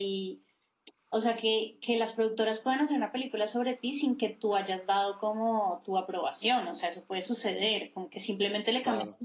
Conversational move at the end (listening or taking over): listening